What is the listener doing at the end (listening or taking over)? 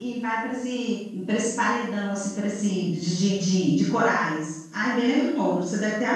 taking over